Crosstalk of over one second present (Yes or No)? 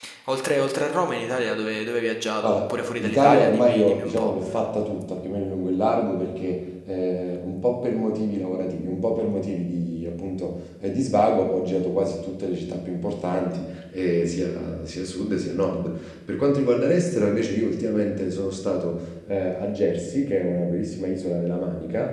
Yes